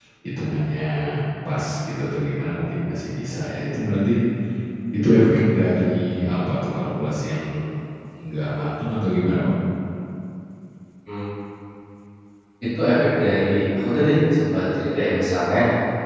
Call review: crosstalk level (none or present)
none